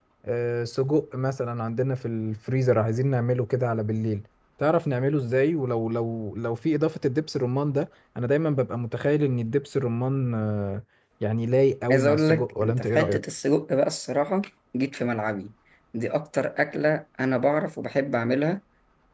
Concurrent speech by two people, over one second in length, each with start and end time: 11.9-13.2

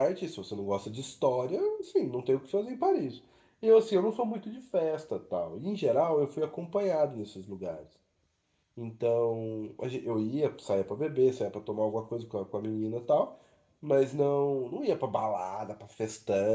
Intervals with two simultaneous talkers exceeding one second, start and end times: none

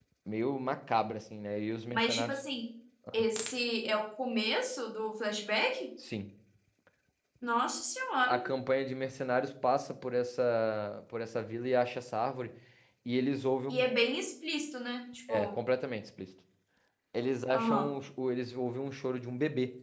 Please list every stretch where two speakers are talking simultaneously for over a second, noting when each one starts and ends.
none

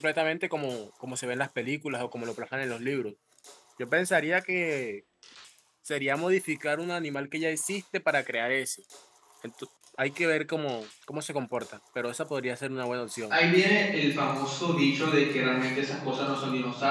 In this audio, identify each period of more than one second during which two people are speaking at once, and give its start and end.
none

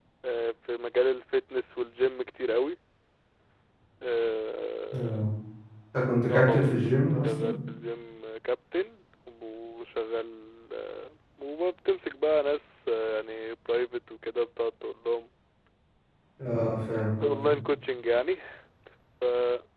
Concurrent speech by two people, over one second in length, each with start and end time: 6.3-7.6

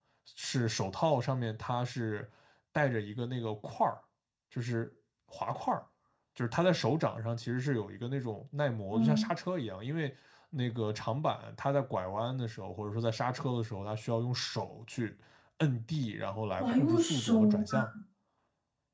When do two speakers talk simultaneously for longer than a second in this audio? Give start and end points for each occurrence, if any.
16.6-17.9

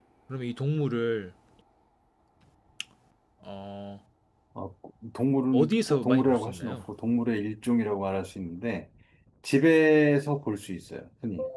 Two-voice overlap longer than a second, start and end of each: 5.5-6.8

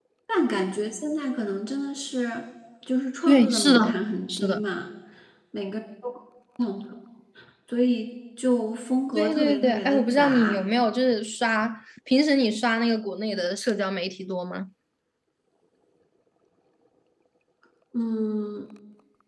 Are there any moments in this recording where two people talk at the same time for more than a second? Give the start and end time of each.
3.3-4.6, 9.2-10.6

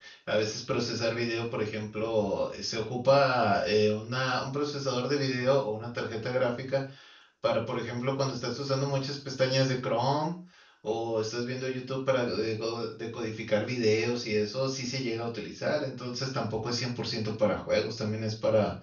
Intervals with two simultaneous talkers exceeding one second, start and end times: none

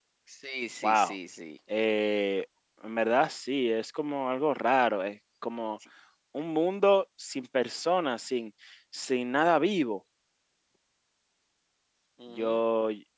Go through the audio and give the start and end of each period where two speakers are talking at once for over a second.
none

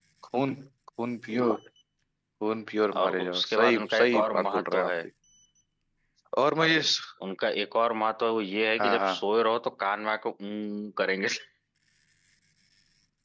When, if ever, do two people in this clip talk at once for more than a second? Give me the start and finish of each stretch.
3.0-4.9

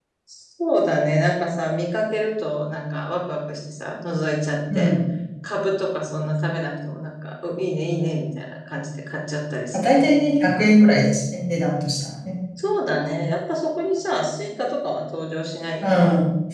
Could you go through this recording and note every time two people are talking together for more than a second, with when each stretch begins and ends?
none

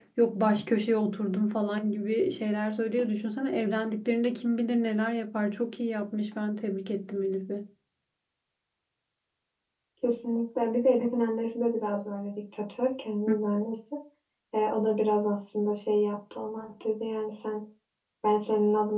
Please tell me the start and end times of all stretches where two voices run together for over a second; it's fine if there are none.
none

